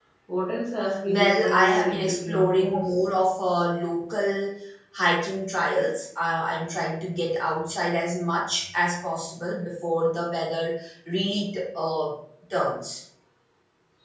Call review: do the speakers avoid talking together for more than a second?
No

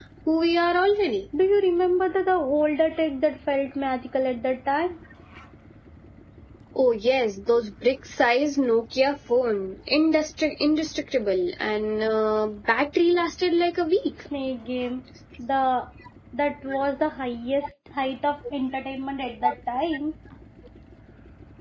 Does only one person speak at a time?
Yes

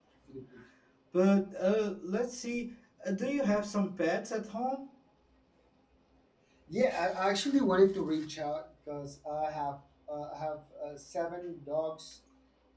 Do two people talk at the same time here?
No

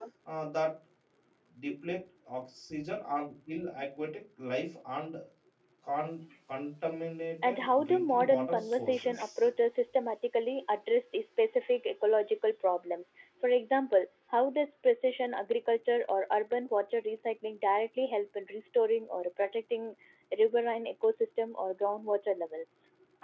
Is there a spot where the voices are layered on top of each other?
Yes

